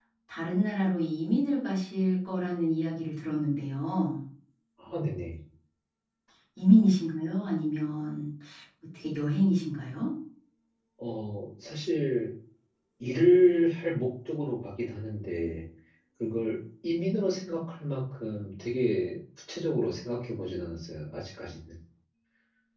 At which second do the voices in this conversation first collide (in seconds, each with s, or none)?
none